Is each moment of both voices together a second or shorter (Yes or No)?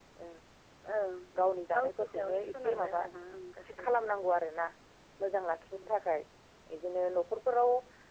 No